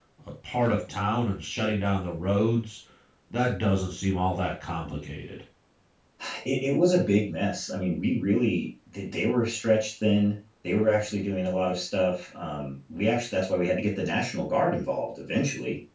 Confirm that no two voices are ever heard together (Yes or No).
Yes